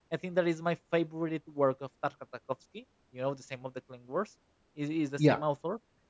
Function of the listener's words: listening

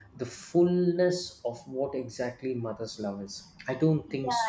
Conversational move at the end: taking over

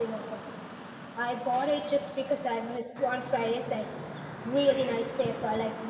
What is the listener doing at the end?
listening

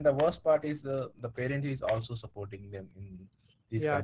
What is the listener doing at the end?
taking over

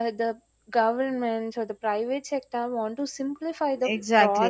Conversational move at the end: taking over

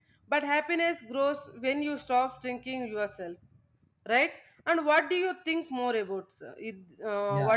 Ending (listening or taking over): taking over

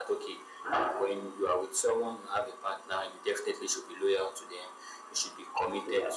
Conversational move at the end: listening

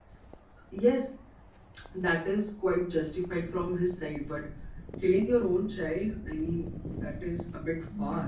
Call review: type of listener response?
taking over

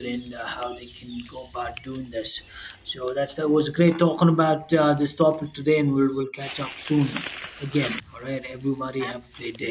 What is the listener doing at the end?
taking over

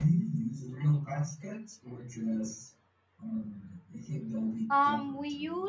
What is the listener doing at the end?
taking over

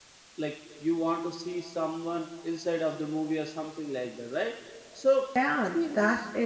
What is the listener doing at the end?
taking over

